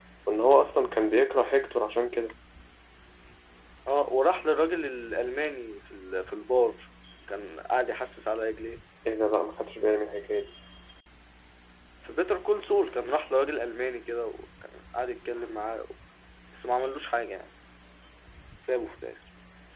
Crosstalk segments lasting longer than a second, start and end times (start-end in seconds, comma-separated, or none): none